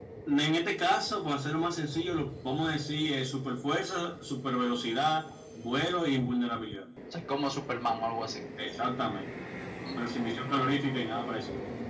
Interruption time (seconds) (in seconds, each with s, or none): none